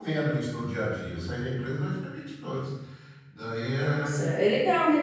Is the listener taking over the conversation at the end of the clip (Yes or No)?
Yes